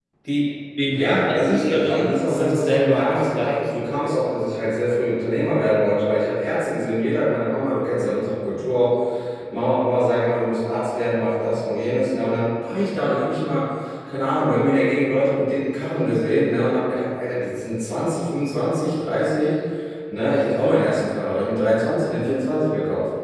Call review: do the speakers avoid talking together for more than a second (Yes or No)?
No